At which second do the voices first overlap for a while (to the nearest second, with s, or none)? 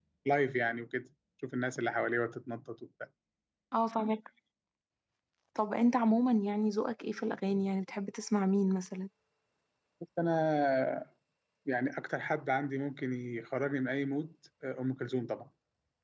none